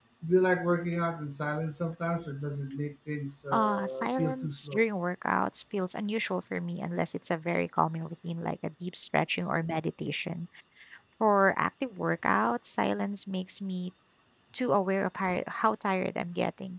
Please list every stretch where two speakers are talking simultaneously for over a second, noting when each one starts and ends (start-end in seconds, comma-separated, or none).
3.5-4.8